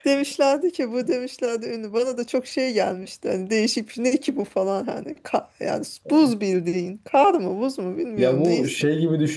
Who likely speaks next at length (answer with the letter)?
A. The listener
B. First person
A